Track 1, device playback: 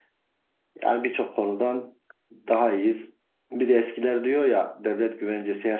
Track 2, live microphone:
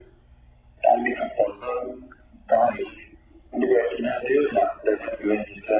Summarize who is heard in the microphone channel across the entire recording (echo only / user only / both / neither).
echo only